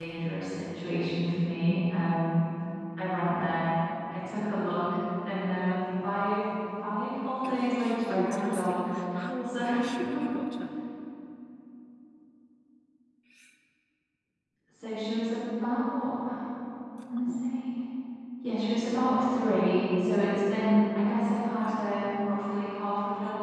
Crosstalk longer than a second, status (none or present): present